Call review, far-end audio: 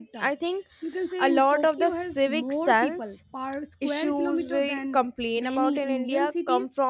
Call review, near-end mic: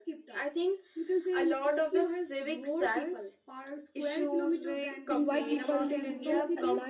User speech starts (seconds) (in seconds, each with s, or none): 5.1 s